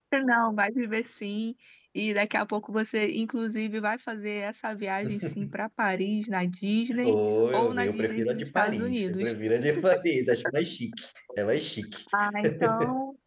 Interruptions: present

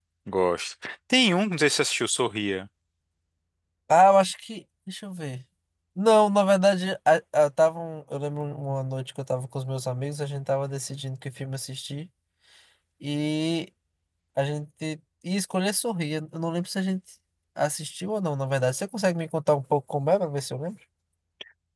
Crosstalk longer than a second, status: none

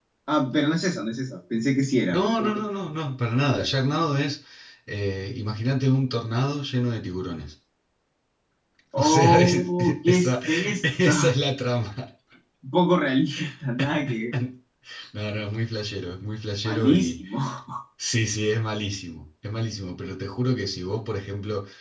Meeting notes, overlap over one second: present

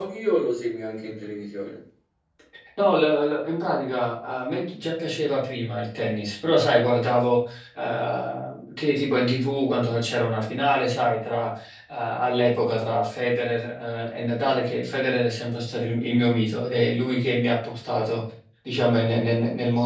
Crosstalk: none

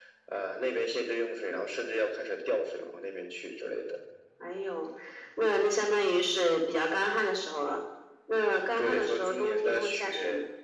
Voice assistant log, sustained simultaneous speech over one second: present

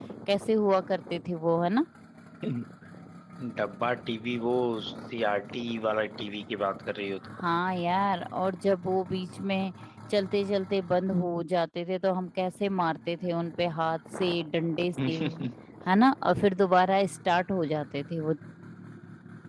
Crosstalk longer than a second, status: none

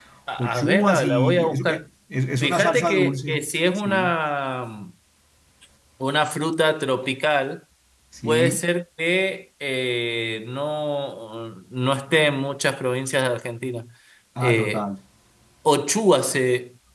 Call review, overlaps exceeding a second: present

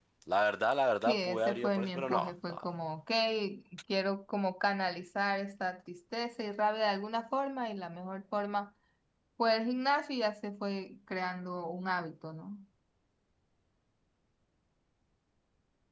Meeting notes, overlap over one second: present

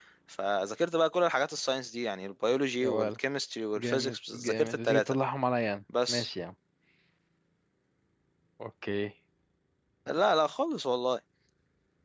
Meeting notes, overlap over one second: present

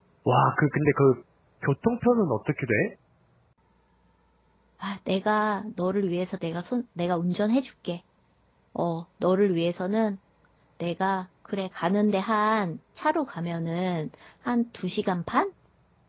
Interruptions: none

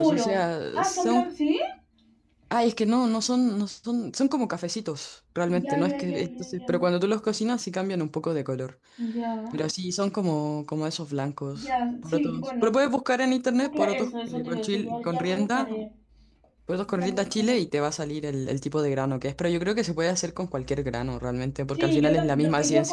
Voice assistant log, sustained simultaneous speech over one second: present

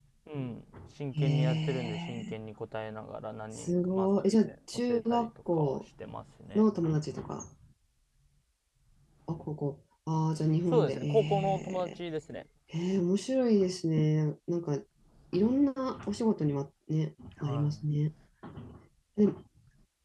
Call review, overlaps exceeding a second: present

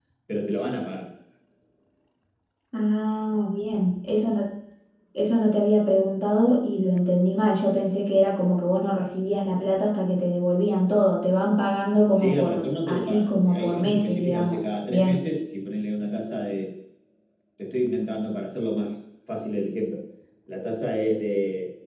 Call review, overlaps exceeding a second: present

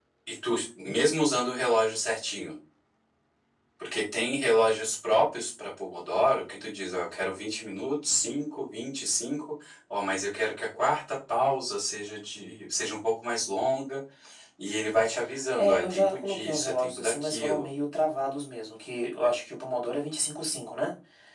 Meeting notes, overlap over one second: present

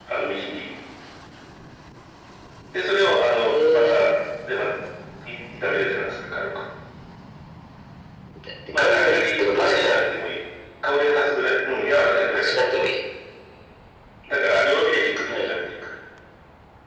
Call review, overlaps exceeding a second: present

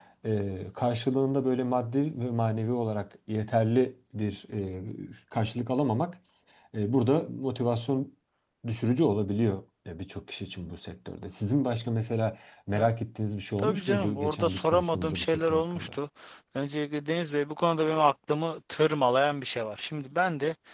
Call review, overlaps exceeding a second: present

